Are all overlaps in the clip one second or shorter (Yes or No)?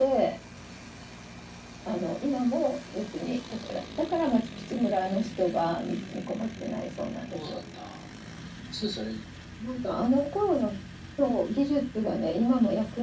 Yes